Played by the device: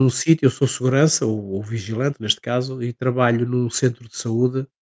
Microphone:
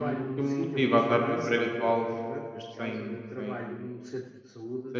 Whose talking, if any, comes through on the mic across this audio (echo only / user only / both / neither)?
both